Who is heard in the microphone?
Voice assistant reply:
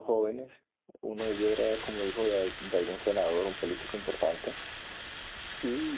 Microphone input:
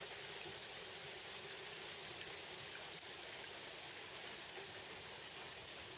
neither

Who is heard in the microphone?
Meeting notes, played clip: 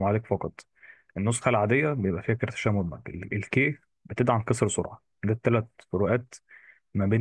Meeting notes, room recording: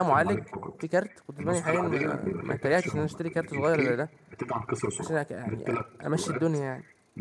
both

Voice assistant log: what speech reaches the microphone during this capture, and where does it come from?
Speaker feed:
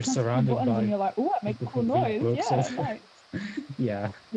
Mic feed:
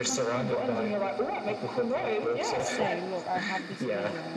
both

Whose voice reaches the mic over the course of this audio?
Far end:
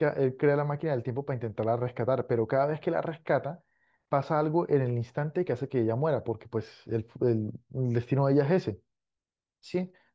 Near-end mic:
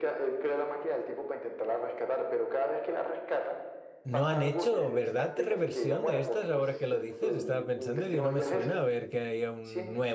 both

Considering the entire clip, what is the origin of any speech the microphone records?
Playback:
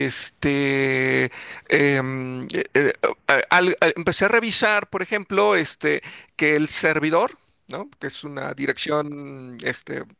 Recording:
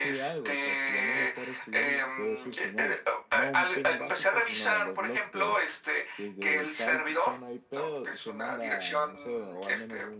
both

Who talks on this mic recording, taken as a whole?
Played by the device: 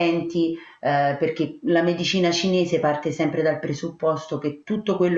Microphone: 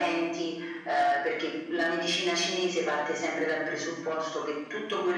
echo only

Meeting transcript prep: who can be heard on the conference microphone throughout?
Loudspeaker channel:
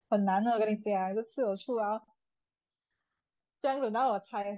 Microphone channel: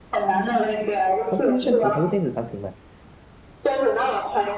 both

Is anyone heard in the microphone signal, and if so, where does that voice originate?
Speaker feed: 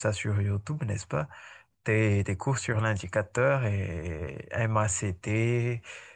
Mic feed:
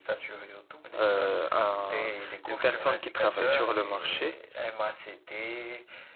both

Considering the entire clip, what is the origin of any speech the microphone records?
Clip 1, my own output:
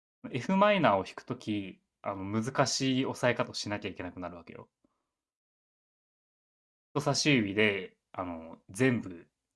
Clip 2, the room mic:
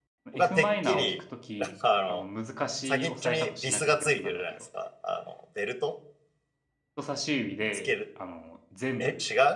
both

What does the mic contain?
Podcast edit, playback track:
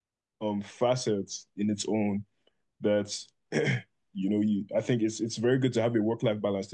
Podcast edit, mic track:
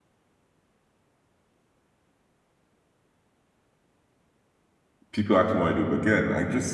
user only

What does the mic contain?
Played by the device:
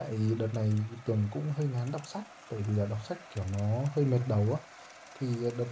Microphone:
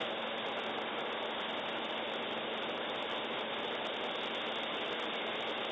neither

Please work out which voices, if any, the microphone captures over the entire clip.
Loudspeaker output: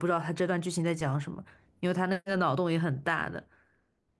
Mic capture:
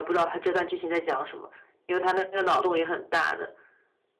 echo only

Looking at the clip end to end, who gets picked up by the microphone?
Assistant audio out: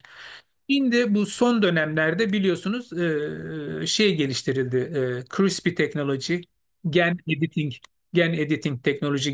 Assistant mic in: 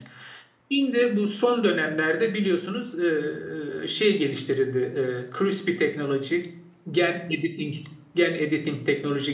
echo only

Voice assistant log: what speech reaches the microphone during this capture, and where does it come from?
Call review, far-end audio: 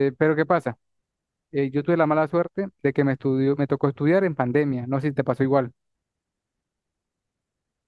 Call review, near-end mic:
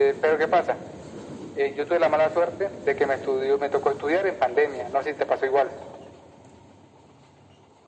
echo only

